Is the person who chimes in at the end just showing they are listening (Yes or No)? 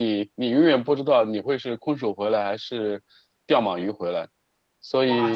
No